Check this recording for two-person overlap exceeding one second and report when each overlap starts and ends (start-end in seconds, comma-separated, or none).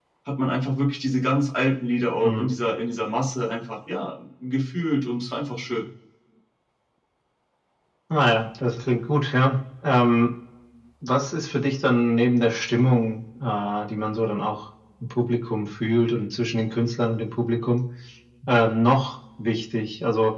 none